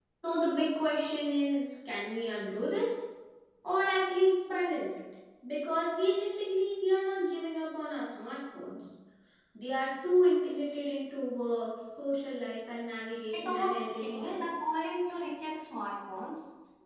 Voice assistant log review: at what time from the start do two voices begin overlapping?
13.3 s

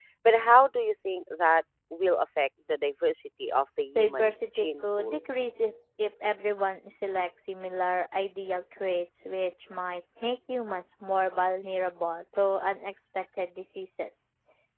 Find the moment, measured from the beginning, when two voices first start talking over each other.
4.0 s

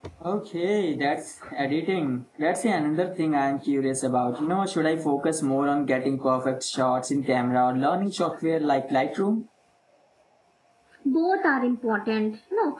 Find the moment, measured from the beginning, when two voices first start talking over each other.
none

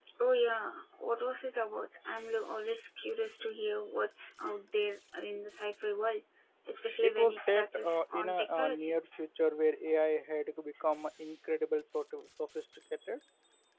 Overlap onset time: 7.0 s

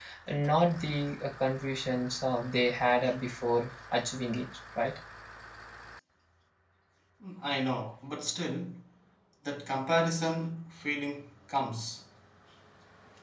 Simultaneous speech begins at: none

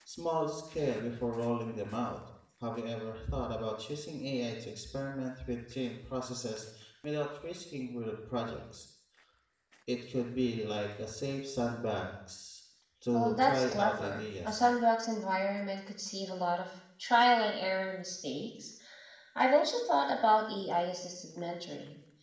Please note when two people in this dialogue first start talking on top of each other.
13.1 s

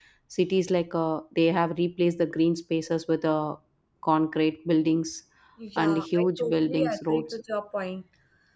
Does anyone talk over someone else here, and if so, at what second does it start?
5.8 s

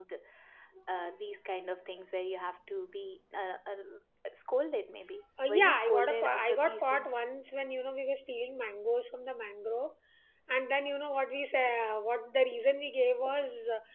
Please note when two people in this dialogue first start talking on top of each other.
5.4 s

